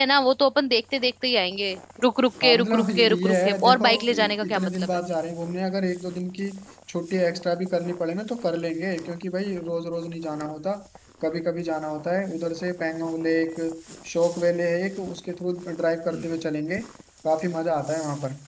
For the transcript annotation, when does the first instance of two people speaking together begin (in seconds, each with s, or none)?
2.4 s